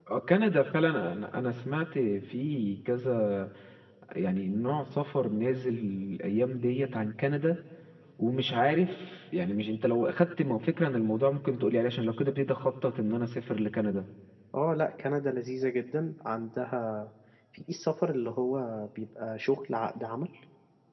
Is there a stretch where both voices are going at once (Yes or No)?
No